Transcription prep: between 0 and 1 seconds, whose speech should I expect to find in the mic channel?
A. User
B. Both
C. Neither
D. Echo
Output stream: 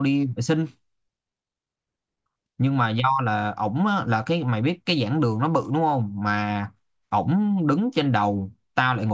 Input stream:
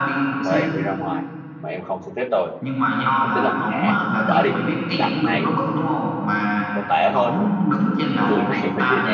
B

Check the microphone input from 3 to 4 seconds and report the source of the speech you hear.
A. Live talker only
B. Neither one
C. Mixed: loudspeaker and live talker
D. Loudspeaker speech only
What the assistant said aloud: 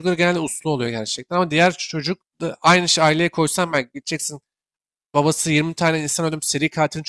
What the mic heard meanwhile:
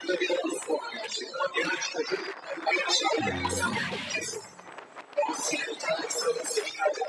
C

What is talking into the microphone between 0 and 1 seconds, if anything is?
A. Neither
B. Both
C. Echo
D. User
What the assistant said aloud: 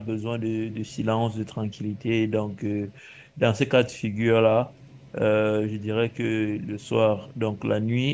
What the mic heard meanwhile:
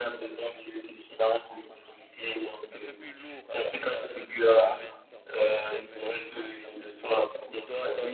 C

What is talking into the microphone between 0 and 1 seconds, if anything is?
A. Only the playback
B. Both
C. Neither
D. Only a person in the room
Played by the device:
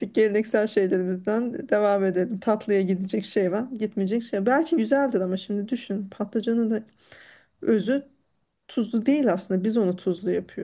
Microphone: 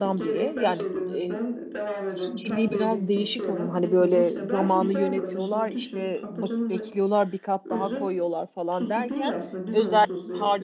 B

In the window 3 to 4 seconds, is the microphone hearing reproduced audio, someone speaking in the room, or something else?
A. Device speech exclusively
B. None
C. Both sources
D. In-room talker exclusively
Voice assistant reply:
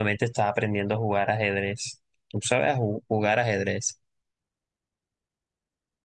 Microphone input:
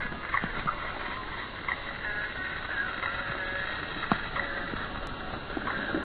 B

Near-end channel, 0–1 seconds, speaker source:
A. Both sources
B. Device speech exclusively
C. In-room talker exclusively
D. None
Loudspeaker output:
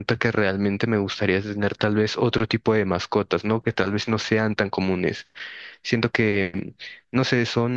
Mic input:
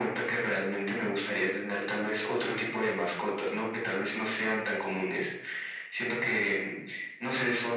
B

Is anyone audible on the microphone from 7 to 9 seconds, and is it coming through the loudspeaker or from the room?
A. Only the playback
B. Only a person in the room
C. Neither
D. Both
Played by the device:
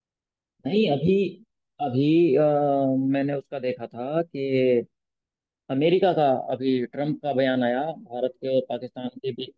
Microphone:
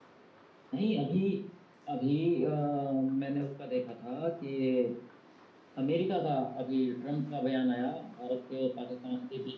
A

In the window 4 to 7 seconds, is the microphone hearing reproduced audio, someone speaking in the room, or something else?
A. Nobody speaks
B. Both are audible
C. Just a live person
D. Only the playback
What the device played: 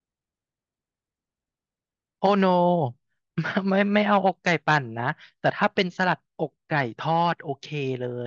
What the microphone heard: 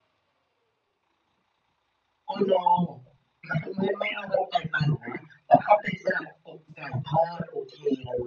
D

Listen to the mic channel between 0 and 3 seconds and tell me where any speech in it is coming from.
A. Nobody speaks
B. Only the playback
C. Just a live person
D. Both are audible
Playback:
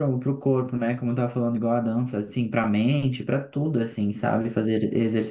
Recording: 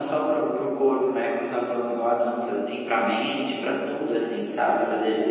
B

